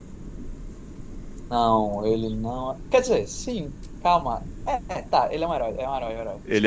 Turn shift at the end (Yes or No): Yes